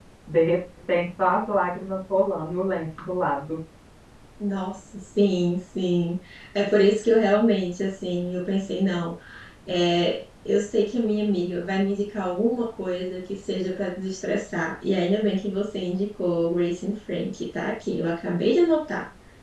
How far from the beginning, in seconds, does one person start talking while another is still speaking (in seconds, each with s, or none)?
none